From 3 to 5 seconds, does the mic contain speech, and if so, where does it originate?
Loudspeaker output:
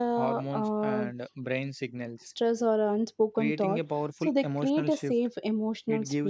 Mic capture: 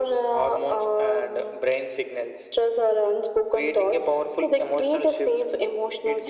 echo only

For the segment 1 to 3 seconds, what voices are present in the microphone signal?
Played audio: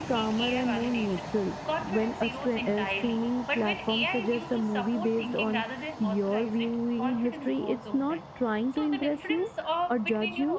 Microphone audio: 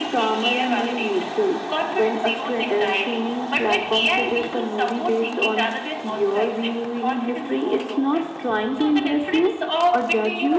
echo only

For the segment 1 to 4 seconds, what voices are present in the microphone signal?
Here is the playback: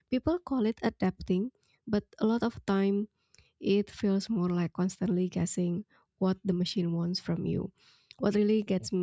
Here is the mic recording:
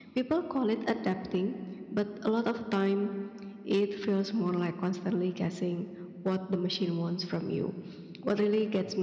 echo only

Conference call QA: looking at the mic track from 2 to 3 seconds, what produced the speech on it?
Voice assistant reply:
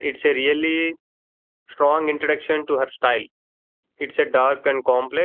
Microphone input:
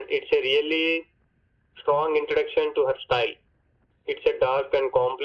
echo only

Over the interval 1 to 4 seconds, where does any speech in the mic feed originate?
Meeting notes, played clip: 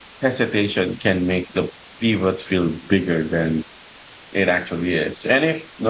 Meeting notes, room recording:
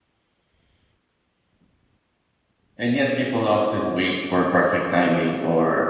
user only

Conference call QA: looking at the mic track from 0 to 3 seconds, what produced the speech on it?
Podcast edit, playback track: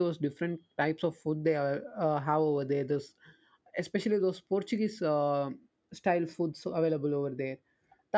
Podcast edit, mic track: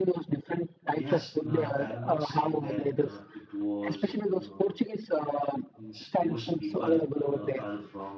both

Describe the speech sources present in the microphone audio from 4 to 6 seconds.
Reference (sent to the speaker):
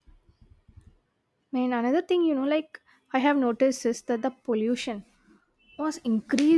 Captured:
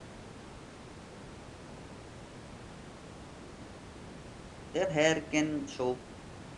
user only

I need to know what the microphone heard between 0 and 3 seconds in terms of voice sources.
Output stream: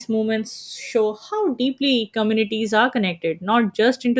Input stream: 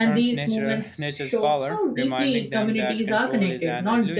both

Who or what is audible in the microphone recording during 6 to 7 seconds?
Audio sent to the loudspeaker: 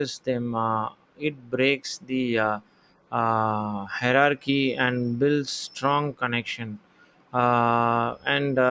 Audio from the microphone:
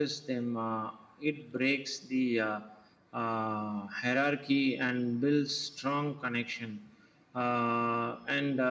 echo only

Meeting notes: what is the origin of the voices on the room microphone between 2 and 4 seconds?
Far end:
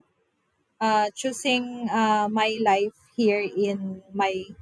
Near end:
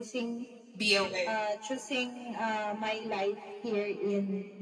echo only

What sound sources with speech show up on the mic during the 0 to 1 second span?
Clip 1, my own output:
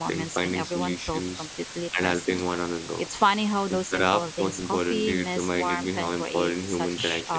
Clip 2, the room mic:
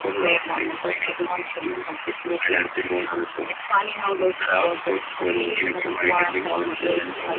echo only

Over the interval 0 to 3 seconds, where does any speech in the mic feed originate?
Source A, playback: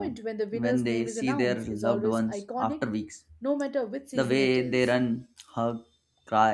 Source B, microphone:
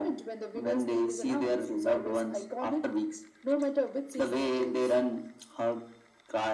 echo only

